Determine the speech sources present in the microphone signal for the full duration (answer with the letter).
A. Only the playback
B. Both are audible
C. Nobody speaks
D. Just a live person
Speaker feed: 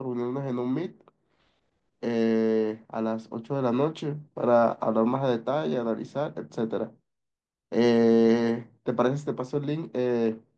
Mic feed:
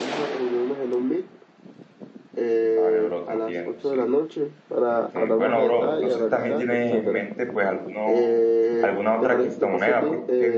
B